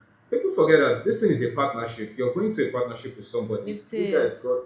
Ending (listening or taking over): listening